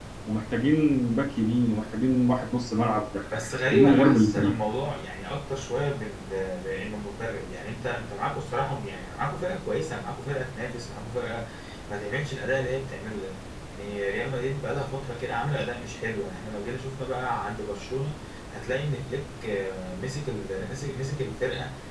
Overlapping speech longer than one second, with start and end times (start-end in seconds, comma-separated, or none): 3.3-4.5